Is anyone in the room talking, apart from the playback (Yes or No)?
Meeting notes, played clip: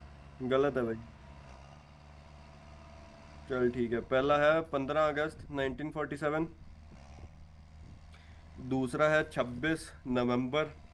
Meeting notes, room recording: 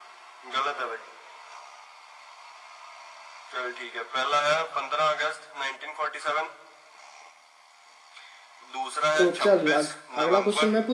Yes